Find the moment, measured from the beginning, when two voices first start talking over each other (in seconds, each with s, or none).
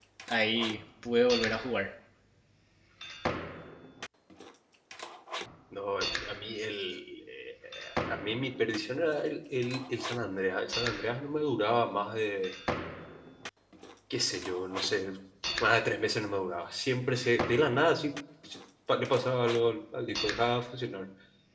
none